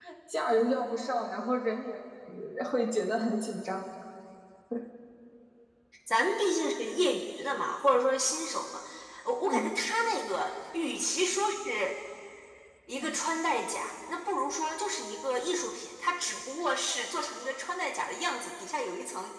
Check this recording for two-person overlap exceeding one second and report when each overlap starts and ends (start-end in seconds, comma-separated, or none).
none